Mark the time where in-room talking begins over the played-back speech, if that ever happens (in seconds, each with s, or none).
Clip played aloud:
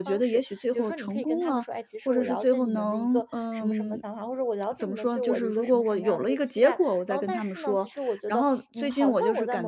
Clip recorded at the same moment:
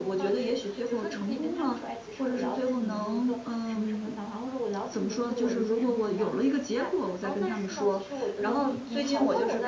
8.3 s